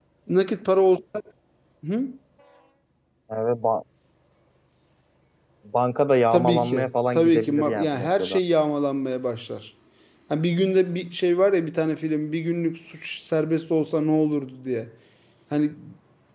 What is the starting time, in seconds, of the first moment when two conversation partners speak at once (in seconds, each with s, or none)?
6.3 s